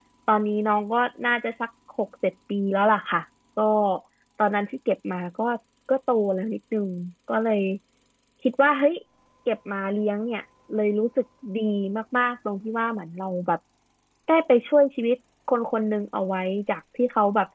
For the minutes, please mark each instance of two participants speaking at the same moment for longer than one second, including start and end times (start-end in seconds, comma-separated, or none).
none